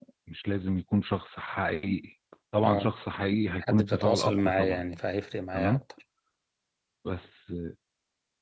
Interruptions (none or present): present